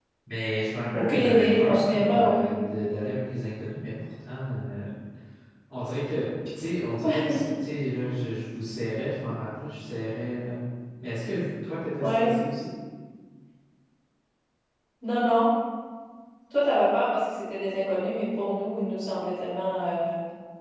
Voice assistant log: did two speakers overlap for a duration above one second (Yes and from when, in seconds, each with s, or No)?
Yes, from 0.9 s